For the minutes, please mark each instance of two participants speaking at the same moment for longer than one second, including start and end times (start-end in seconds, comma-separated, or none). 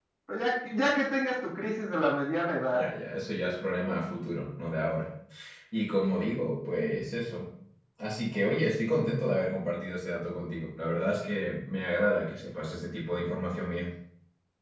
none